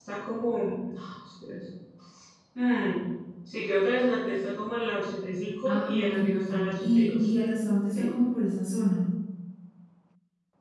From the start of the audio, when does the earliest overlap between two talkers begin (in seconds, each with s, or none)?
5.6 s